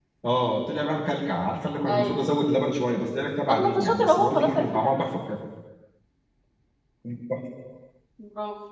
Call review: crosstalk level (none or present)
present